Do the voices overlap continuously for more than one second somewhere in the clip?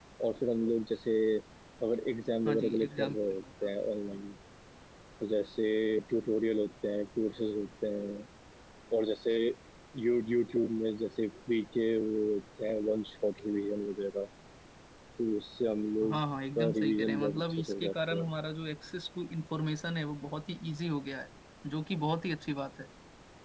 Yes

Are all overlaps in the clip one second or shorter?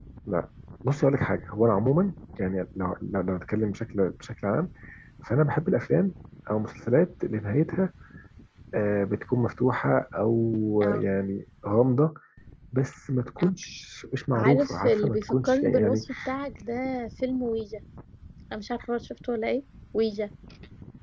No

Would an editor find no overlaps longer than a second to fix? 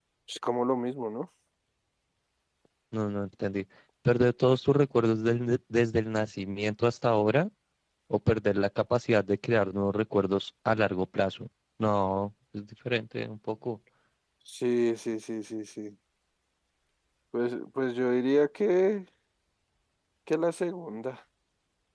Yes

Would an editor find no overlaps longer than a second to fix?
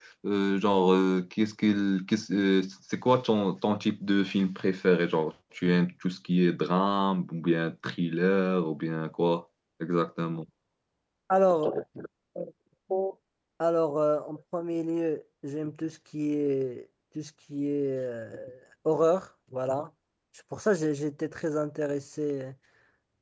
Yes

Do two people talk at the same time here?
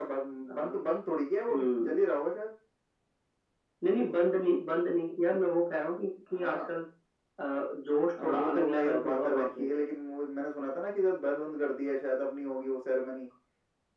Yes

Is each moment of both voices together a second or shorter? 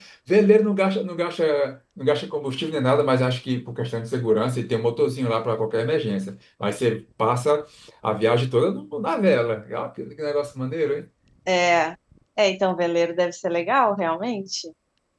Yes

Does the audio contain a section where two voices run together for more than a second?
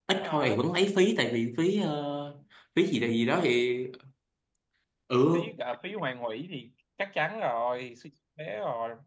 No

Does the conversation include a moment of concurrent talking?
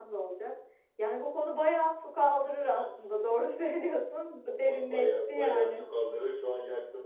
Yes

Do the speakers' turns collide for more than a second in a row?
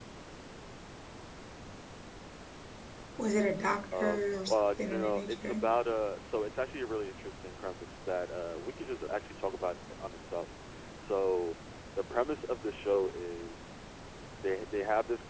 Yes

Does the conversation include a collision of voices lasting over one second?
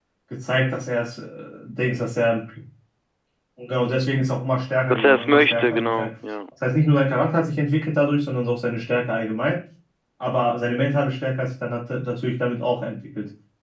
Yes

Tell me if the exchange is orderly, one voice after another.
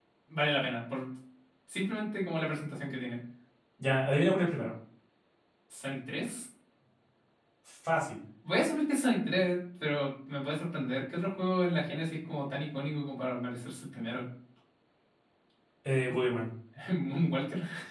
Yes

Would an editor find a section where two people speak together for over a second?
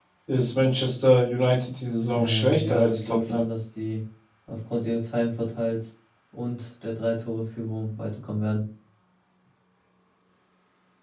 Yes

